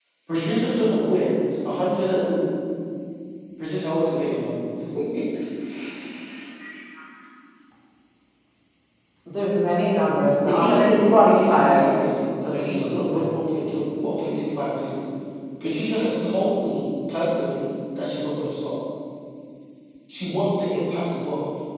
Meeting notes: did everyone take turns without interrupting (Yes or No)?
No